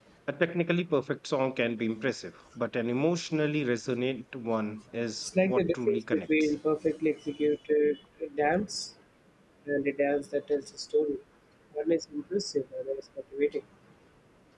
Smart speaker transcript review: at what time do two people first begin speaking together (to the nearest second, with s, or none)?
5 s